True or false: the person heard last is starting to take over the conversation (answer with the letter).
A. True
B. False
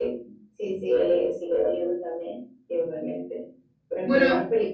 B